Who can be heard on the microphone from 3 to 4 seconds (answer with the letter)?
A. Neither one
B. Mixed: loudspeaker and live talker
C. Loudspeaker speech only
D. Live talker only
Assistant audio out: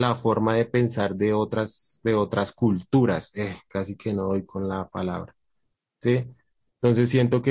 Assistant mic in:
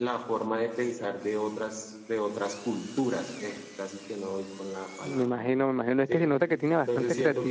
C